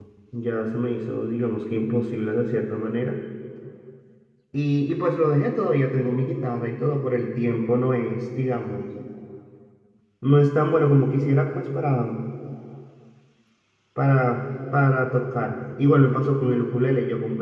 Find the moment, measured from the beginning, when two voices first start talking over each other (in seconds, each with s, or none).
none